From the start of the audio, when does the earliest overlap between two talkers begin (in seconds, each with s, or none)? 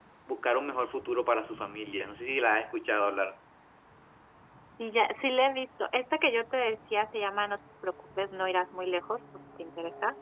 none